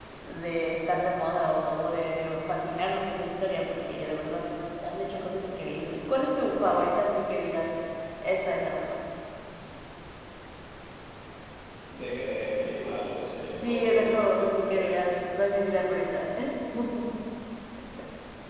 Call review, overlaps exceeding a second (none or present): present